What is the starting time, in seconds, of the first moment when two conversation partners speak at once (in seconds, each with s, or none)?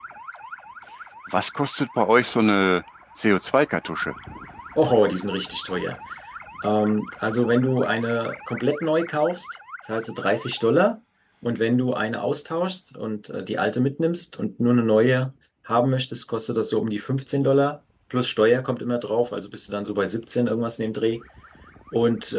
none